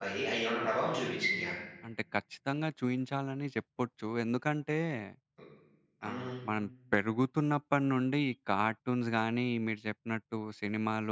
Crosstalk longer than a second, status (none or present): none